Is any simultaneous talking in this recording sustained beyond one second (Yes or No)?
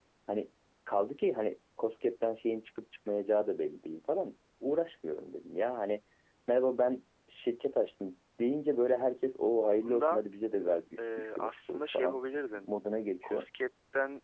Yes